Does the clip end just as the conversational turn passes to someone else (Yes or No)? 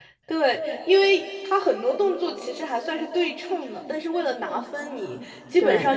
No